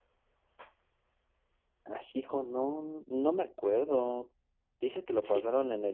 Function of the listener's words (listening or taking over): listening